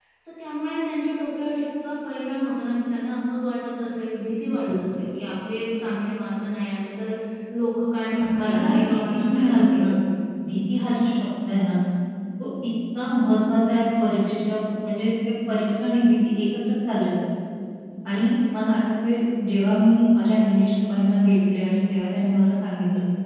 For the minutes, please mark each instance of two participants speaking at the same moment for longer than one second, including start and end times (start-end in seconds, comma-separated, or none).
8.4-9.9